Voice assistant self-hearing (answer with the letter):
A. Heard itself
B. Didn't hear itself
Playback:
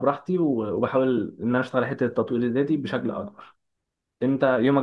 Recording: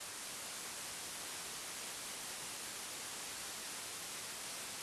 B